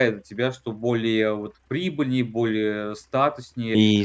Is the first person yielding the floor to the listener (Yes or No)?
Yes